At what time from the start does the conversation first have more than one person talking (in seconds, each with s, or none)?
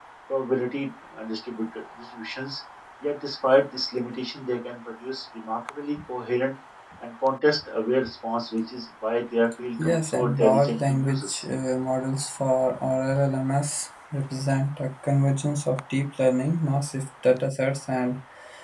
9.8 s